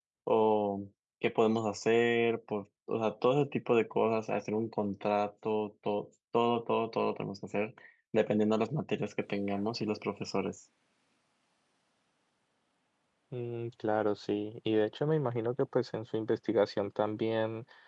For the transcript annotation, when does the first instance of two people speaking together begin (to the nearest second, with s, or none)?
none